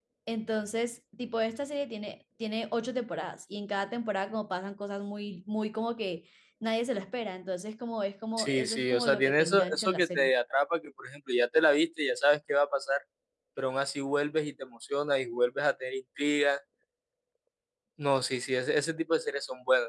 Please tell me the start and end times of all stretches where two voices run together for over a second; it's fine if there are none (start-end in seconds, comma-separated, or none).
8.4-10.3